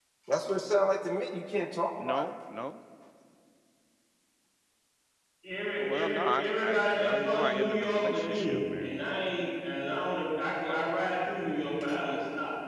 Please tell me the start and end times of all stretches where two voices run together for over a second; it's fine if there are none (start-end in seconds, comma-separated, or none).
5.8-8.9